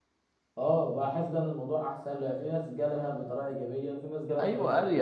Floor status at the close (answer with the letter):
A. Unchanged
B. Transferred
B